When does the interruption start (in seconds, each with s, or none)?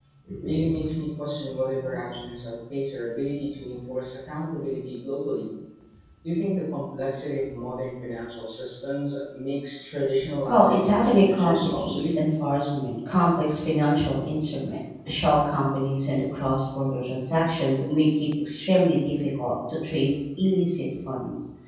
10.5 s